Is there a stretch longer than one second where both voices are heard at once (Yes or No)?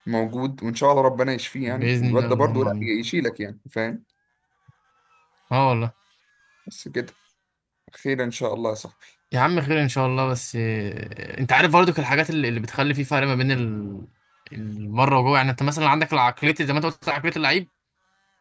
Yes